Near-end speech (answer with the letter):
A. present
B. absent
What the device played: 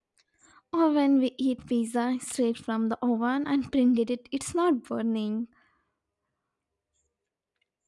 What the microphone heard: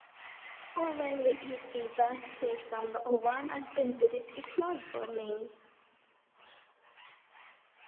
B